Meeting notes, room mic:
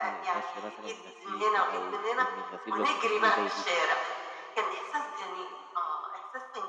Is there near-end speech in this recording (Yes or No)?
Yes